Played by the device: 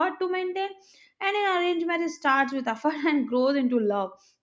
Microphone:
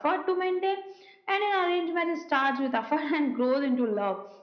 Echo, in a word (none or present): present